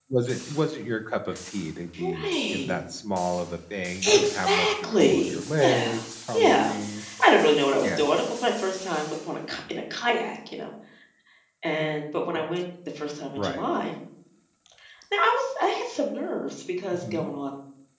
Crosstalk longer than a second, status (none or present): present